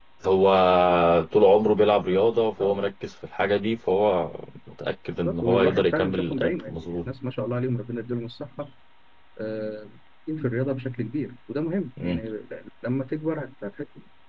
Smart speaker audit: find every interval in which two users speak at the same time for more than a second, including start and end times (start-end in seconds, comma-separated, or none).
5.2-7.1